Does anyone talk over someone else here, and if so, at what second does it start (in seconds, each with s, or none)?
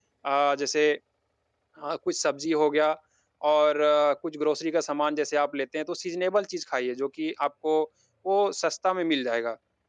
none